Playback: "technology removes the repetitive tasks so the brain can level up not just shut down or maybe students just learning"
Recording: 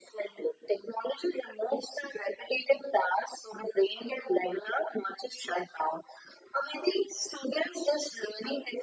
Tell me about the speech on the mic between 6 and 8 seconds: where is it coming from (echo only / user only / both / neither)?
echo only